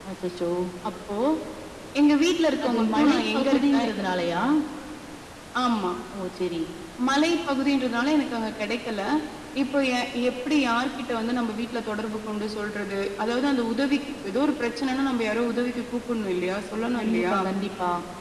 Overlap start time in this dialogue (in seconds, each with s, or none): 2.6 s